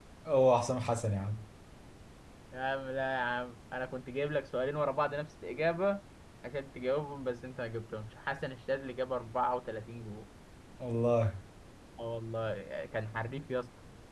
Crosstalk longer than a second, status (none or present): none